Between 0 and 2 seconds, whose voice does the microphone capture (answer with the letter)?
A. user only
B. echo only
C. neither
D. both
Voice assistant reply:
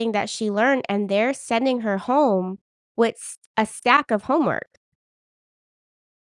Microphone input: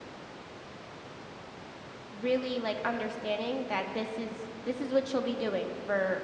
C